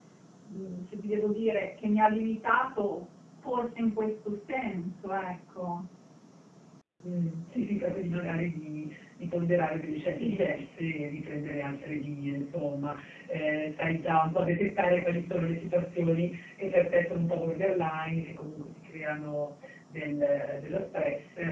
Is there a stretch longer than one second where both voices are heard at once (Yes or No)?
No